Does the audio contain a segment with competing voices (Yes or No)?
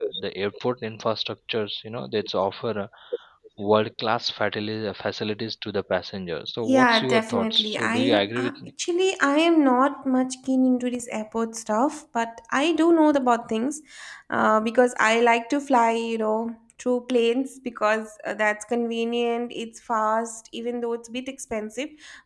Yes